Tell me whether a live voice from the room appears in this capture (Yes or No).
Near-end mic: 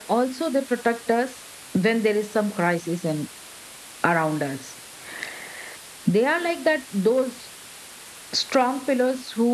Yes